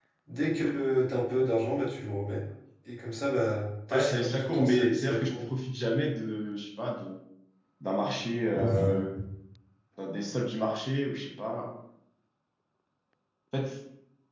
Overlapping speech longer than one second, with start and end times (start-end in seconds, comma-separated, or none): 3.9-5.3